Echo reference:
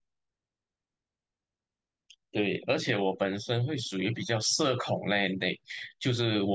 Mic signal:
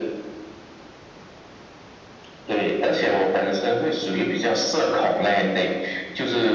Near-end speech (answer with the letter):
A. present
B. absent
B